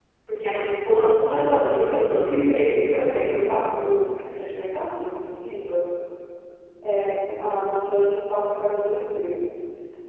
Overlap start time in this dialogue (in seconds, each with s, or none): 1.2 s